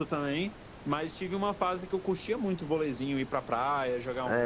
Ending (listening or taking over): taking over